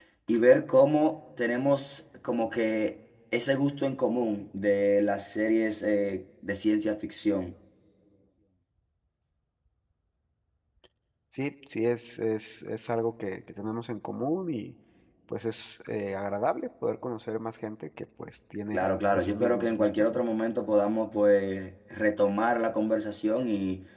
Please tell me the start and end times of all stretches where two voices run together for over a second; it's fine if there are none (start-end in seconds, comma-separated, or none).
18.7-20.2